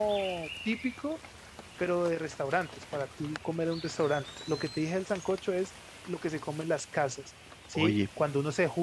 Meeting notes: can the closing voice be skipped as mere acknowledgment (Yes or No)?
Yes